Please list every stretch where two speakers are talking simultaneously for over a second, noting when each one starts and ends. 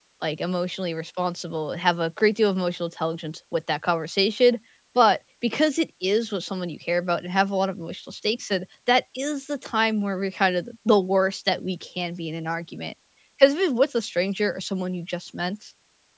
none

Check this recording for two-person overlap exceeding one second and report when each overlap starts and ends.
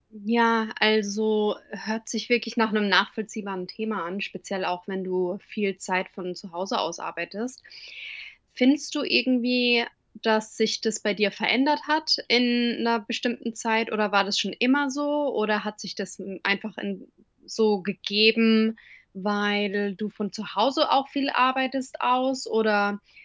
none

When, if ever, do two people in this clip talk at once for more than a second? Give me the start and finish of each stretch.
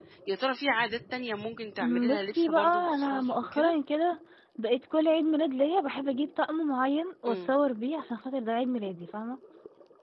1.8-3.7

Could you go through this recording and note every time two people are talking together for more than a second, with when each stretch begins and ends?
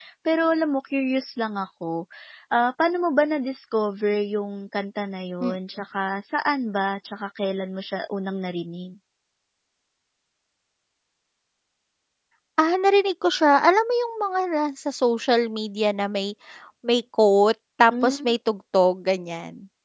none

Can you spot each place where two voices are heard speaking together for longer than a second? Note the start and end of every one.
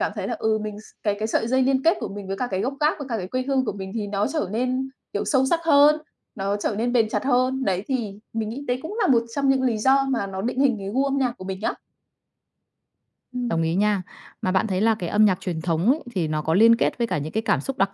none

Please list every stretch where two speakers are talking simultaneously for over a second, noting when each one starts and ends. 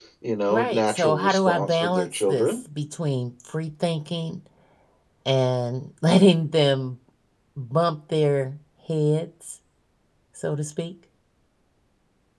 0.5-2.6

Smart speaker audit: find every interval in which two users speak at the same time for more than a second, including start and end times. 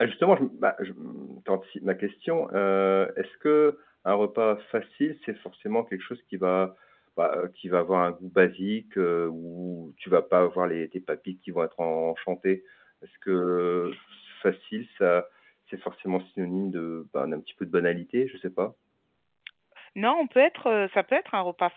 none

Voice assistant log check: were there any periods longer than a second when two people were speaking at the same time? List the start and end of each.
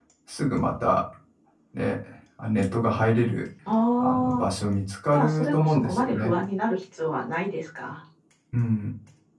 5.1-6.3

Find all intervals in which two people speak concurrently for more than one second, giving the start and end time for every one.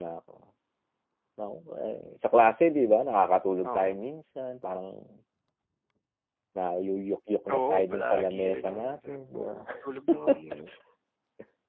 7.5-9.6

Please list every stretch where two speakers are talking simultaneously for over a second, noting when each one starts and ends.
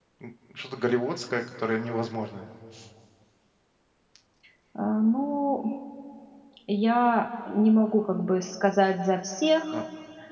none

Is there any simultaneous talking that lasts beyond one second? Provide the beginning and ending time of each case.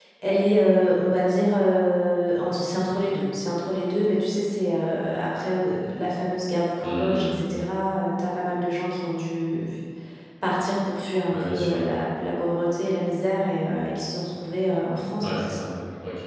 none

